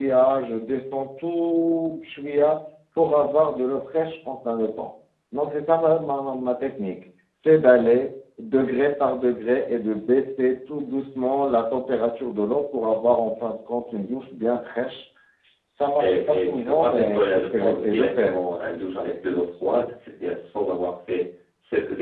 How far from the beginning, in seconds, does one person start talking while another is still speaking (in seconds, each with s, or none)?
16.0 s